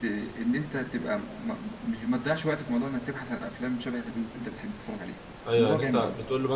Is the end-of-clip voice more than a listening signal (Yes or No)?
Yes